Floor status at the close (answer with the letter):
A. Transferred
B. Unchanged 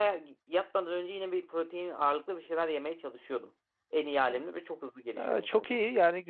A